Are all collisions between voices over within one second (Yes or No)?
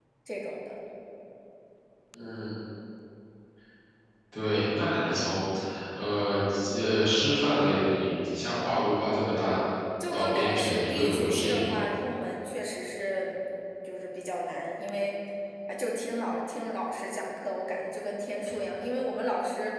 No